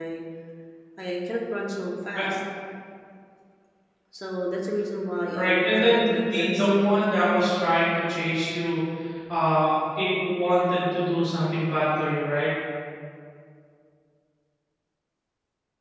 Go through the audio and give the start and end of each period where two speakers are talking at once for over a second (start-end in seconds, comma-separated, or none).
5.4-6.7